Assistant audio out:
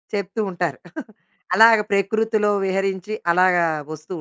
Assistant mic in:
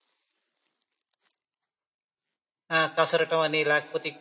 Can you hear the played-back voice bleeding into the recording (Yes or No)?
No